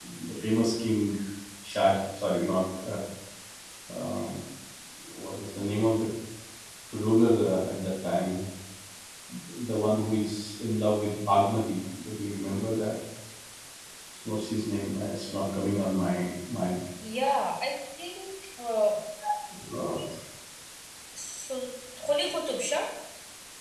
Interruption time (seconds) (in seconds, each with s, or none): none